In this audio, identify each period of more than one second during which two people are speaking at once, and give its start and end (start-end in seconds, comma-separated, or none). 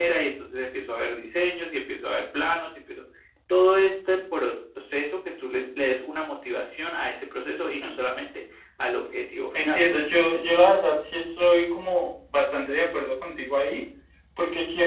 none